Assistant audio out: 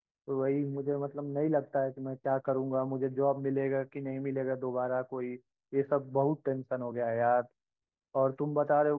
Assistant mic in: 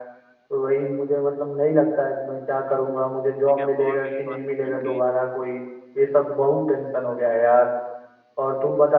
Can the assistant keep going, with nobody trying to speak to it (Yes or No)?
No